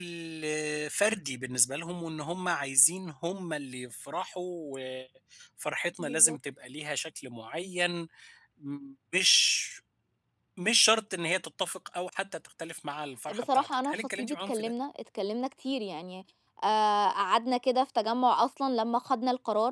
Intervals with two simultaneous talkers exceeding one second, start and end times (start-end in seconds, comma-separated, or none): 13.3-14.7